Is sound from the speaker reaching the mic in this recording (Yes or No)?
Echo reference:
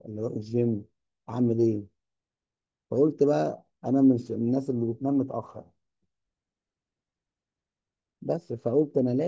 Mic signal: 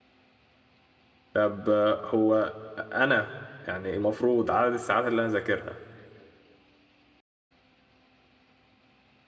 No